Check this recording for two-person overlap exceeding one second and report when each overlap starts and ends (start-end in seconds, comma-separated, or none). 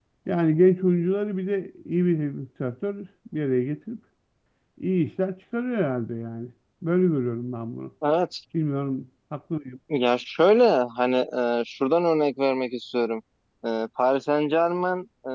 none